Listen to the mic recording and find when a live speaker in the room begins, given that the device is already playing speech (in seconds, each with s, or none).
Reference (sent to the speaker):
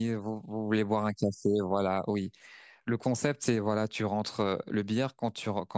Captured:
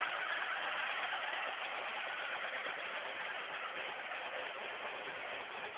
none